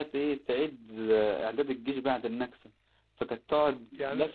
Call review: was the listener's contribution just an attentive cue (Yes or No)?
Yes